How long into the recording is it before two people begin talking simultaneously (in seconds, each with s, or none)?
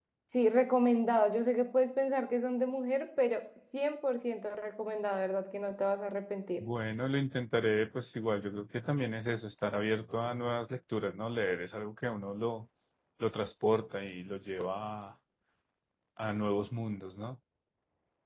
none